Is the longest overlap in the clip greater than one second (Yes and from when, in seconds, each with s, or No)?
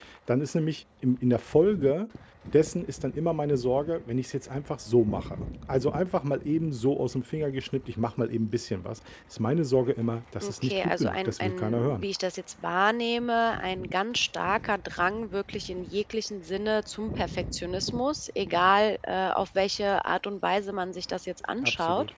Yes, from 10.4 s